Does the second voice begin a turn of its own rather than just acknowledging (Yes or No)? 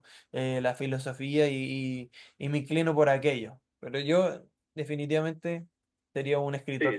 Yes